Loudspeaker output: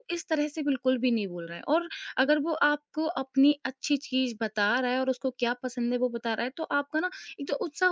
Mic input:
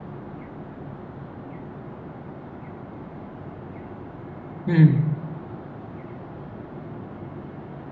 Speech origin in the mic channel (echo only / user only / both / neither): user only